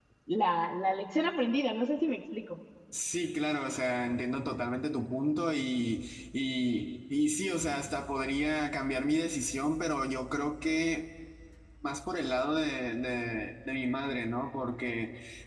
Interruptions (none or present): none